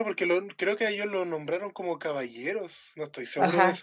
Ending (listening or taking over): taking over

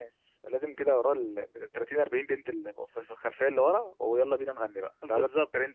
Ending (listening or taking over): taking over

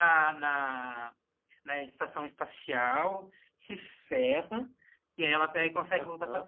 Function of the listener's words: listening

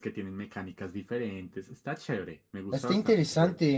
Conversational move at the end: taking over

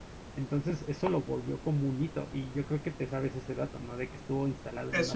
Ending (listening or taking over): listening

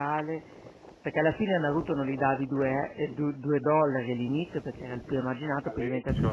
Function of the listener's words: taking over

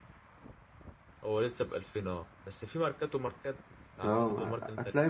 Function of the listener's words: taking over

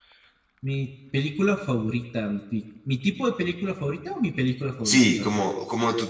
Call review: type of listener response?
taking over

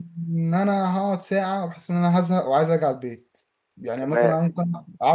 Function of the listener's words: listening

